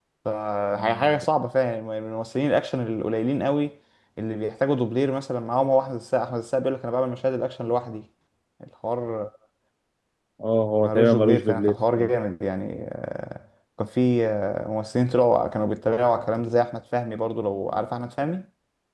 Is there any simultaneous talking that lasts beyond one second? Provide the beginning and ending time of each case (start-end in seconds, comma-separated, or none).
10.8-12.1